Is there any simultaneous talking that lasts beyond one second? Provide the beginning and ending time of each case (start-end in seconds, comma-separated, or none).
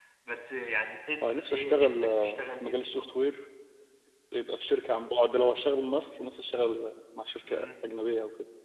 1.5-3.1